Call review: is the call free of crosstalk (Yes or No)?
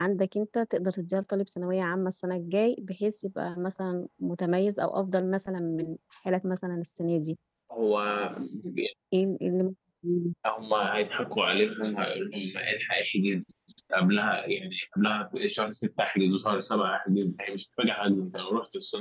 Yes